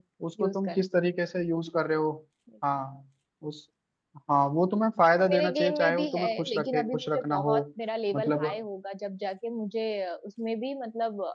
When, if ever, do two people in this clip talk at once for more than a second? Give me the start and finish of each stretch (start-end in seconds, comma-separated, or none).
5.2-7.6